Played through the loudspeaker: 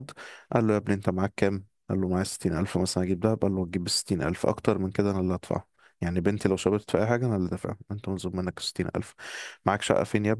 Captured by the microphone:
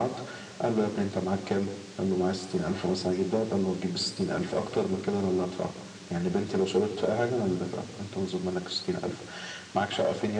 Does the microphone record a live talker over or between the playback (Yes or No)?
No